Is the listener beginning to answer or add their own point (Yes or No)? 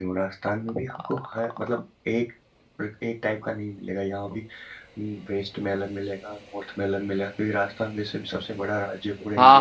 Yes